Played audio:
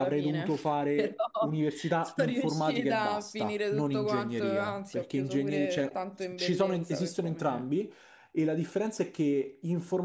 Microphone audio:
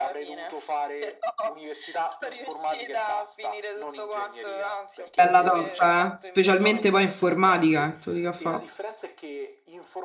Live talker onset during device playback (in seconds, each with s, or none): 5.1 s